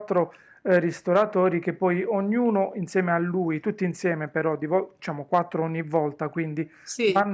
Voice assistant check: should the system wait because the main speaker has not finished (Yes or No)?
Yes